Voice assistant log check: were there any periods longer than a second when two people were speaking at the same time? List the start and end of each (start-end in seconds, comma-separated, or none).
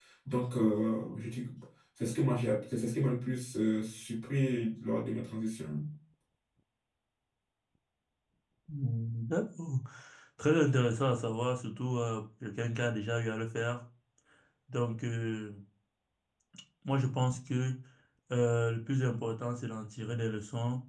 none